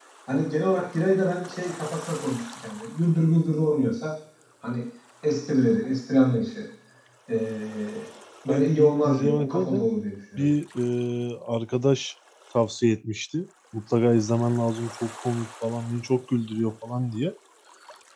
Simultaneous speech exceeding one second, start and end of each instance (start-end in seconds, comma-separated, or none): 8.5-9.9